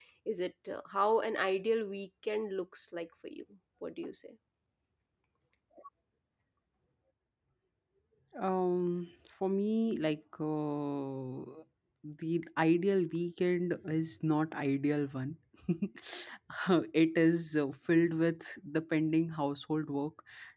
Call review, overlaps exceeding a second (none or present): none